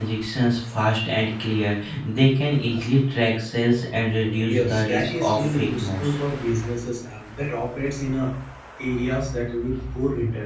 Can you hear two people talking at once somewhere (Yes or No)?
Yes